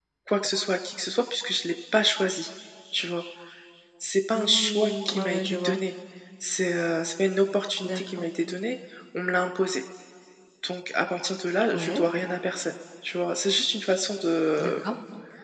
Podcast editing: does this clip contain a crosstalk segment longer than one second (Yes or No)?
Yes